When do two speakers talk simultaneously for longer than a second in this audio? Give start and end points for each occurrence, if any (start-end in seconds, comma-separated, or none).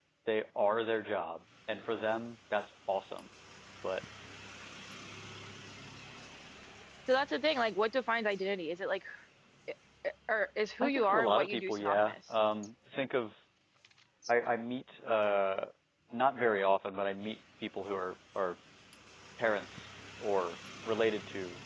10.8-12.1